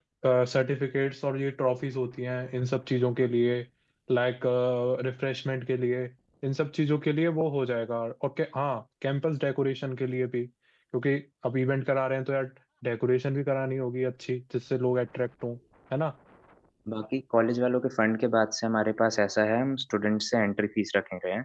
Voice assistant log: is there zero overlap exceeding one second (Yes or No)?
Yes